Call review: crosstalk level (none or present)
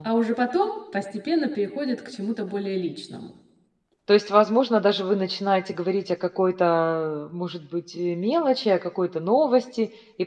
none